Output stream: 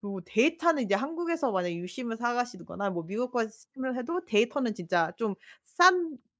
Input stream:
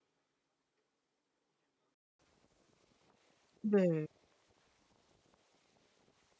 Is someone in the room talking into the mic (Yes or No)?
Yes